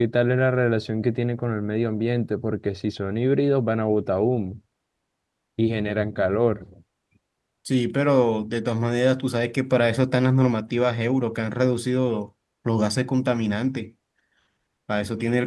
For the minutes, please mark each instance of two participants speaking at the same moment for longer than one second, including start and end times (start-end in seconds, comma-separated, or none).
none